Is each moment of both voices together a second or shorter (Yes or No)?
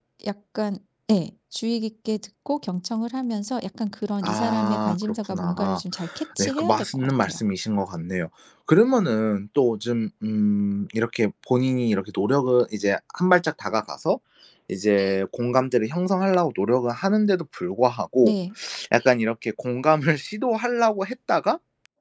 No